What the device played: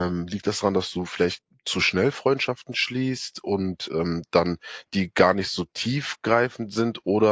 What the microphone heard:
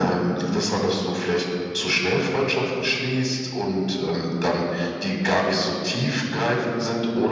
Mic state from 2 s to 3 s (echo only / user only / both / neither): echo only